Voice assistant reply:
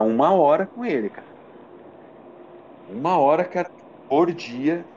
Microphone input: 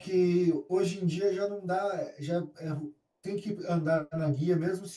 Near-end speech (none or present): present